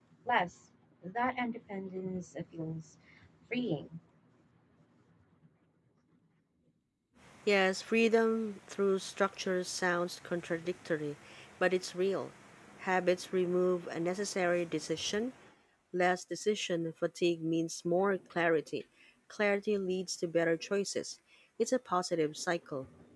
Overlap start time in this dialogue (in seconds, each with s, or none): none